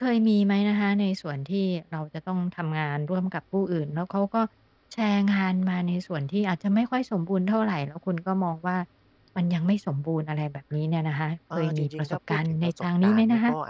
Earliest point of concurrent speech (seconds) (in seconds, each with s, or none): 11.5 s